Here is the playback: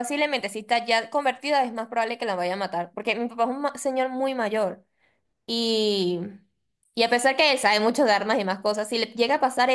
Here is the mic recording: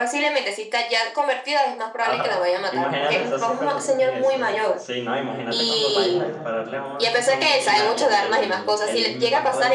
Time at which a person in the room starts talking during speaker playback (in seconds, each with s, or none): 2.0 s